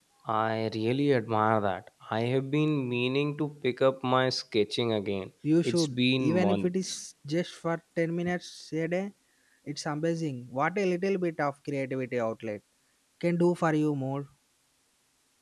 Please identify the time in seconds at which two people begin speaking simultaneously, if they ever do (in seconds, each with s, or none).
5.4 s